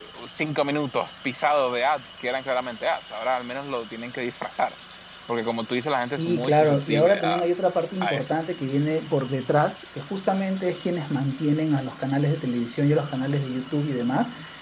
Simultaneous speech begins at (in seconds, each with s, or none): 6.2 s